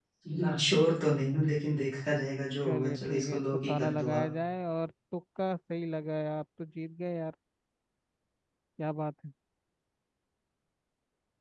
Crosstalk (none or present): present